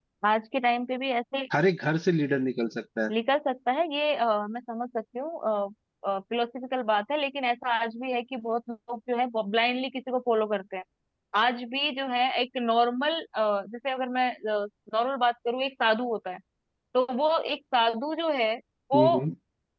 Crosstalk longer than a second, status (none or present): none